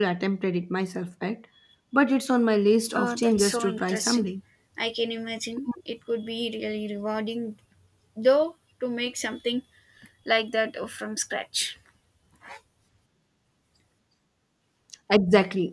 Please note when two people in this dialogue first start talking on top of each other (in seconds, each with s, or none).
2.9 s